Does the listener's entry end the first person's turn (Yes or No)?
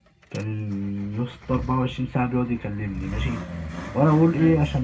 No